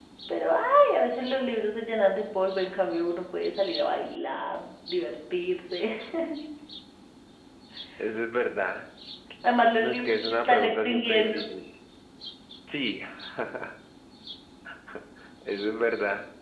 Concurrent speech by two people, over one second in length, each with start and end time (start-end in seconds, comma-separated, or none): 9.8-11.4